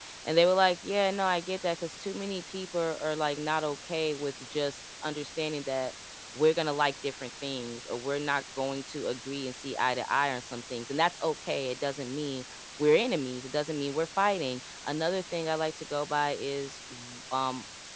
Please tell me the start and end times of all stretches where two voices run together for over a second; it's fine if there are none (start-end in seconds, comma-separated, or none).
none